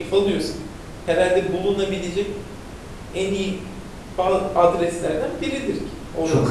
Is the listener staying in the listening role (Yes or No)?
No